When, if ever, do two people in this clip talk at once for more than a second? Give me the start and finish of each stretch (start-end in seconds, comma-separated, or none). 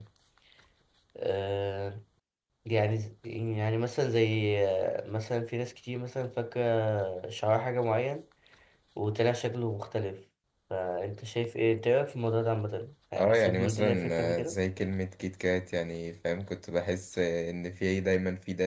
13.2-14.6